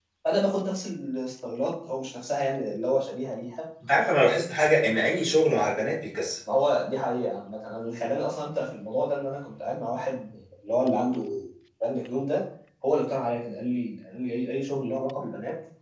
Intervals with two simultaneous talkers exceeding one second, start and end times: none

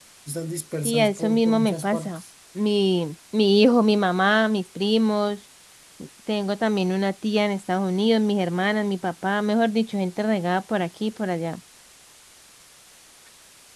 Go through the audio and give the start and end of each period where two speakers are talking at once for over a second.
0.8-2.2

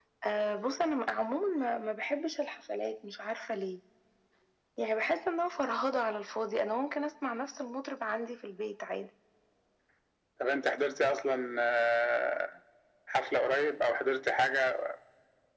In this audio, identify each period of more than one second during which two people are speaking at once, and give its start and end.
none

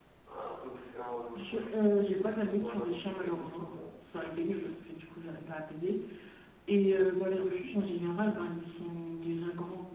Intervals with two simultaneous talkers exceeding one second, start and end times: 1.4-3.6

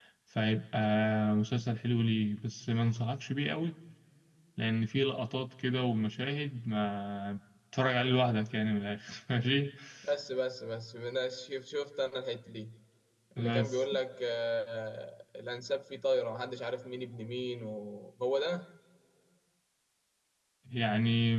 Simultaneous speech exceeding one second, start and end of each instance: none

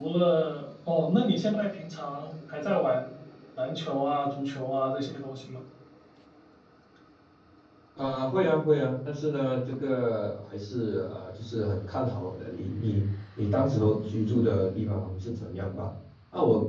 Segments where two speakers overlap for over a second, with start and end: none

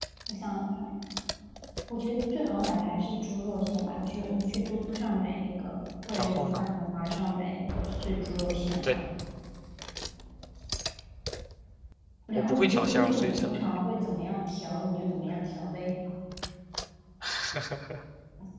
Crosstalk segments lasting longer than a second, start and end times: 12.3-13.8

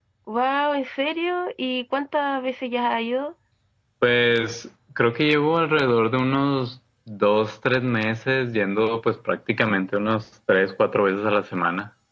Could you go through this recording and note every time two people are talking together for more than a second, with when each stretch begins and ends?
none

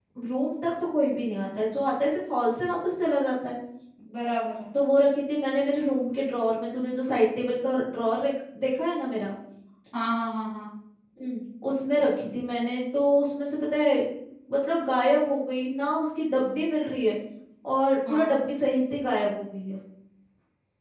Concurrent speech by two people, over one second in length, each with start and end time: none

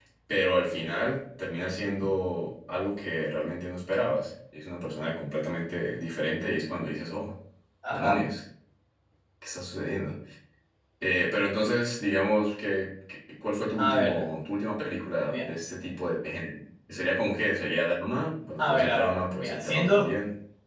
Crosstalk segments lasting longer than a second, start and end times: 18.6-20.0

